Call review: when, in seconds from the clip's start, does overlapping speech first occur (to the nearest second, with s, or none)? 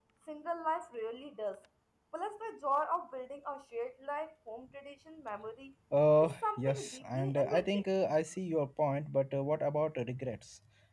6 s